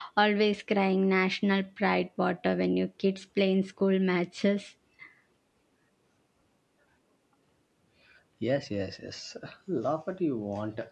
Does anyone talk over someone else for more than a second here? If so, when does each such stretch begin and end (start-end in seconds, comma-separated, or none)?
none